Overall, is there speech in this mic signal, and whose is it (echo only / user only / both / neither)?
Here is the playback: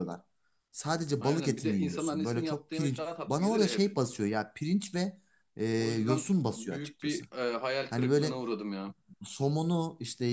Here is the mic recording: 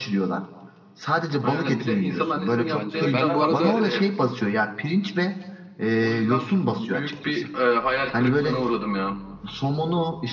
both